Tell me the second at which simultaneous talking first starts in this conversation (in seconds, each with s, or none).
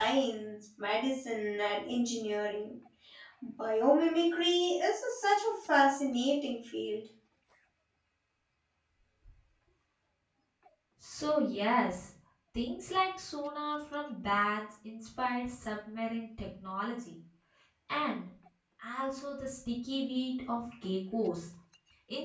none